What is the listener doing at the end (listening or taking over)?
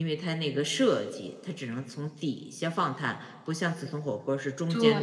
taking over